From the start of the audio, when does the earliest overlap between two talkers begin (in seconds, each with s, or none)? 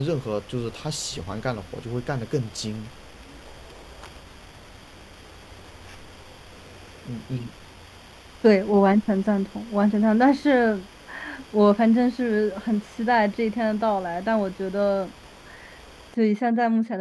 none